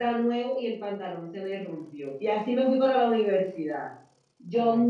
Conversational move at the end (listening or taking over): listening